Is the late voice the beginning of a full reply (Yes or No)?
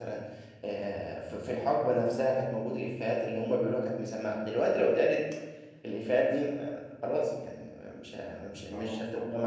No